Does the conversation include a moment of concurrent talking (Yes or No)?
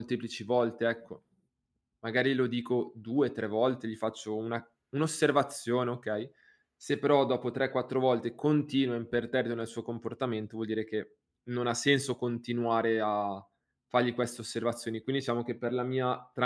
No